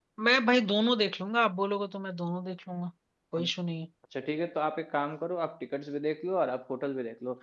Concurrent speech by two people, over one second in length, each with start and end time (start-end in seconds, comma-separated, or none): none